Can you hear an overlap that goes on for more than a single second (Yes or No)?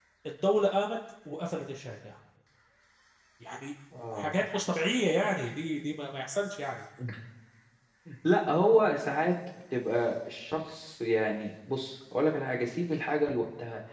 No